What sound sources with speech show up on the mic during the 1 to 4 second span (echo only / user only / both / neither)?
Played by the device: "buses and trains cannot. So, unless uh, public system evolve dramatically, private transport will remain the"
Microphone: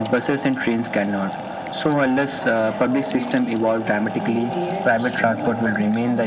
both